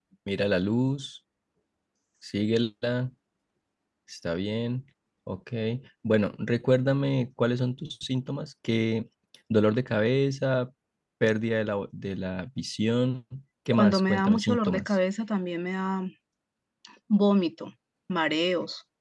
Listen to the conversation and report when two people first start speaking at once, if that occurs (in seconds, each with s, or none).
13.7 s